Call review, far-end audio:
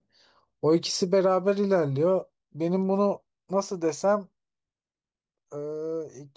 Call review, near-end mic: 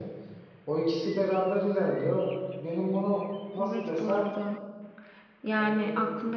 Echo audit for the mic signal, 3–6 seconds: both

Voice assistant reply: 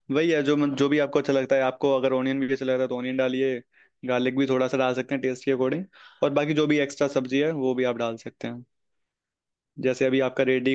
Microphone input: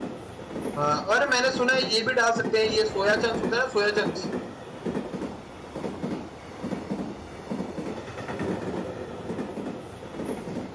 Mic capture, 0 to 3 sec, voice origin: user only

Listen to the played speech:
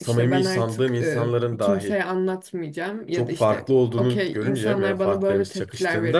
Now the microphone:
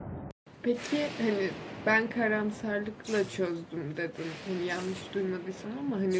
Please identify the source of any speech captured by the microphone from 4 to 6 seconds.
user only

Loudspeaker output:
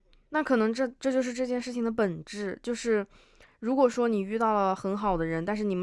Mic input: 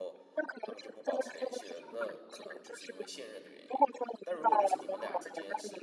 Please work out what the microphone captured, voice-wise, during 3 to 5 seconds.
both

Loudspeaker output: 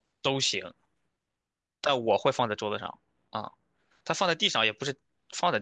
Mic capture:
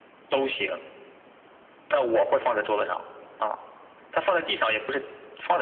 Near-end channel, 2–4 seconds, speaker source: echo only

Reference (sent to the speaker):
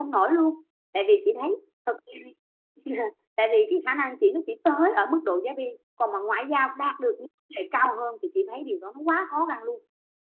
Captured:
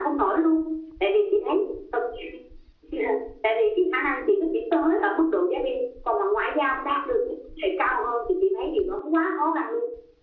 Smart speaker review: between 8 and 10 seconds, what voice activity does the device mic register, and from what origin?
echo only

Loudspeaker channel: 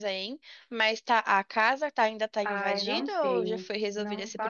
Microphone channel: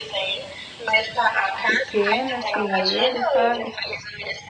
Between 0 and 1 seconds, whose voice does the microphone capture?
echo only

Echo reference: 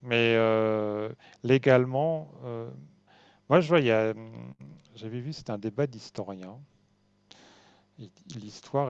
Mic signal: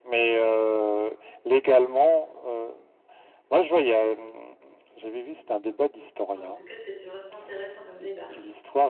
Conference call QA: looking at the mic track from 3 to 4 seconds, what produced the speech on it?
echo only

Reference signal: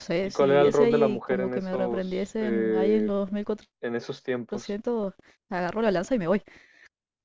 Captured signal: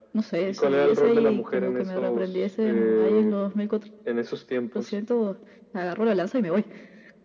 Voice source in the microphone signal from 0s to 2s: echo only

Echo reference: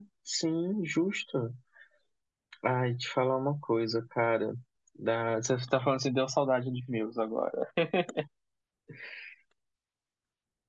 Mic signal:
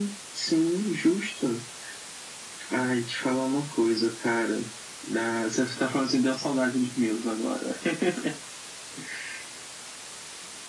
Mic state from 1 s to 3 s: echo only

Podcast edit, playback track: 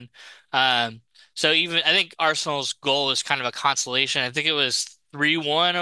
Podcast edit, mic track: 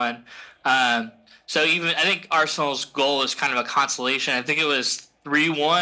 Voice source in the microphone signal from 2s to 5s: echo only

